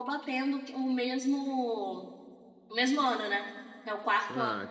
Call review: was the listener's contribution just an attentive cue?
No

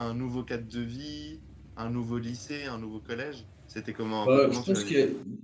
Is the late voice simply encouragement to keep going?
No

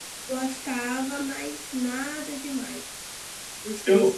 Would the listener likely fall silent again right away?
Yes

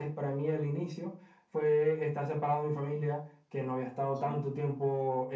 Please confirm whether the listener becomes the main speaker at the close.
No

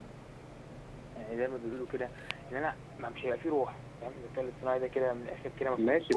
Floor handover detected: Yes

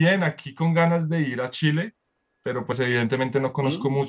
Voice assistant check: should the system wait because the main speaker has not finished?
Yes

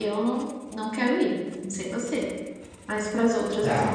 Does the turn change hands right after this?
Yes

